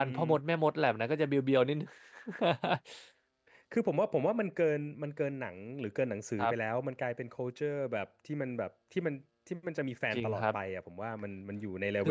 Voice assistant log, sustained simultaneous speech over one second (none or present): none